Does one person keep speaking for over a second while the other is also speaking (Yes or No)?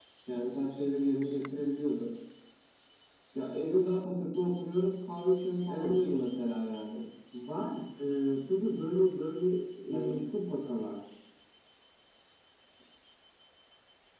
No